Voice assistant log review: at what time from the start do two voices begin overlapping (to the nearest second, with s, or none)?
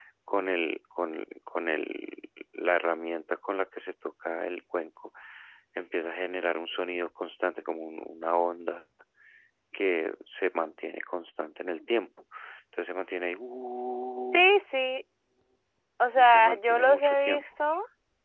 16 s